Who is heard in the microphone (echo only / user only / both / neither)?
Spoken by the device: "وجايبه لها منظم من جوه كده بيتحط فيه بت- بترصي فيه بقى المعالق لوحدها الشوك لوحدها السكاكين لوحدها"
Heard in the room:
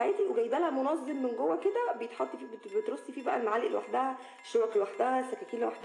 echo only